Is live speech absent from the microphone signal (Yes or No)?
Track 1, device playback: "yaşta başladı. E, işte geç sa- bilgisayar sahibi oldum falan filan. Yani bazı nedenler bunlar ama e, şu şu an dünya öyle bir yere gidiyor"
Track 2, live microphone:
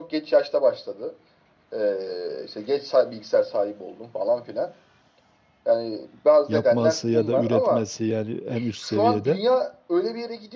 No